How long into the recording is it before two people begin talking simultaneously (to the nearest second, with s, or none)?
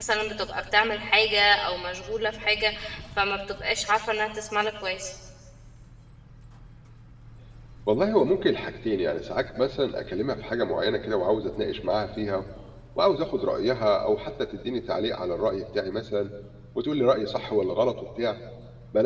none